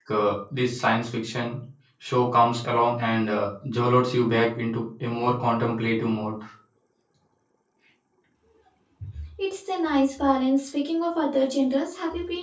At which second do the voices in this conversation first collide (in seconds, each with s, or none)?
none